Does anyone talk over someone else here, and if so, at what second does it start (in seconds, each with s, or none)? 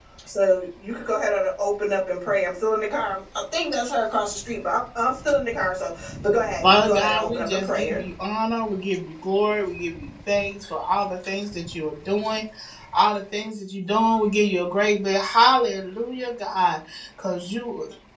6.6 s